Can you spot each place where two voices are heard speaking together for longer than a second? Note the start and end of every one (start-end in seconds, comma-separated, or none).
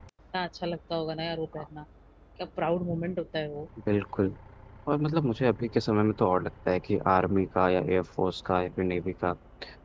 none